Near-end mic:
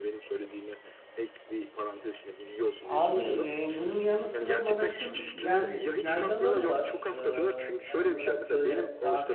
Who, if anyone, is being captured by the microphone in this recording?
both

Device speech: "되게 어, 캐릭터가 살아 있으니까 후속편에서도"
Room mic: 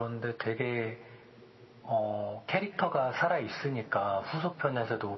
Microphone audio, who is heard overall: echo only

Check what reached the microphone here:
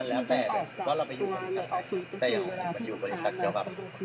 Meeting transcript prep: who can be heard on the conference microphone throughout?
both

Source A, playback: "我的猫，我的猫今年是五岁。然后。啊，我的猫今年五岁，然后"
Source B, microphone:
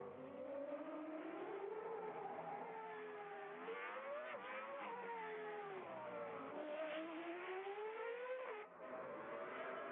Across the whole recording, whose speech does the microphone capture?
neither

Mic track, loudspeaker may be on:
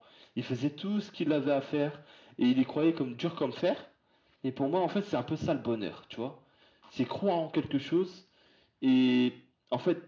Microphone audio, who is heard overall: echo only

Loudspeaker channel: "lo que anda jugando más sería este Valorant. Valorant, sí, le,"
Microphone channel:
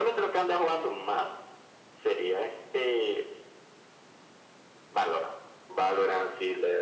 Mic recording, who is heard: echo only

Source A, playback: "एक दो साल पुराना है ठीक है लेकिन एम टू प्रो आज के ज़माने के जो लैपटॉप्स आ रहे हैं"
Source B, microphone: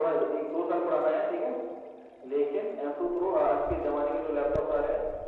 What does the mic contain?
echo only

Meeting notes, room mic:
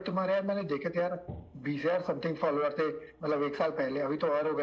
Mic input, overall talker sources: echo only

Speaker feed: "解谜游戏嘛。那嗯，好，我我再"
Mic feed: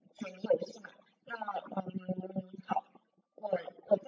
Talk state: echo only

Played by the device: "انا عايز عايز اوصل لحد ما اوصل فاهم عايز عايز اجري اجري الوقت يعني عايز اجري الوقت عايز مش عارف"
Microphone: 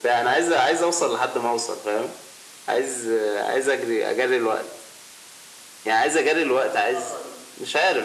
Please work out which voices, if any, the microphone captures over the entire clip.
both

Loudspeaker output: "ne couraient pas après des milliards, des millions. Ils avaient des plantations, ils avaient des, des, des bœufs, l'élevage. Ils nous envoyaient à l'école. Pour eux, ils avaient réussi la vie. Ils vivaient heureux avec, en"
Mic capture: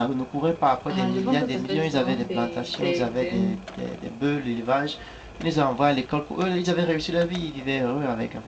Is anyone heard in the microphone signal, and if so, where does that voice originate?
both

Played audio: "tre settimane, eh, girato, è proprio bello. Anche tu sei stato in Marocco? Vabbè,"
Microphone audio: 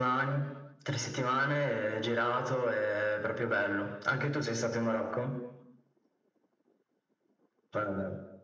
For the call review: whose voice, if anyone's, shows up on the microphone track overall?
echo only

